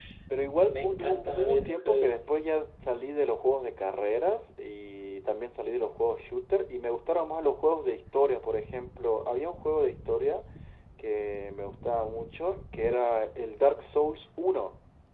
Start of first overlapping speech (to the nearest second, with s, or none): 1 s